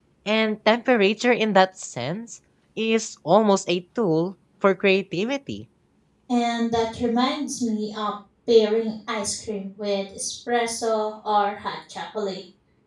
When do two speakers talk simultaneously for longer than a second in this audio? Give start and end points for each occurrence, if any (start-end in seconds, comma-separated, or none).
none